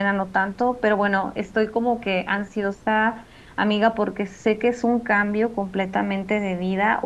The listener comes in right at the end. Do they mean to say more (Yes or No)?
No